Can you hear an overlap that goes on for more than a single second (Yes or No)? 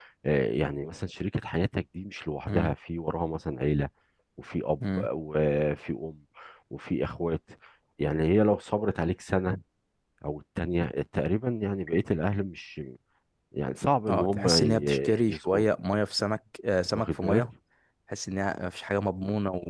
Yes